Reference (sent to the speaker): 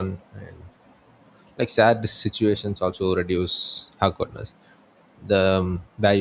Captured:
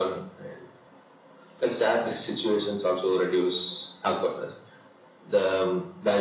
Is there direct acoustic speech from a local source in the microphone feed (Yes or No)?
No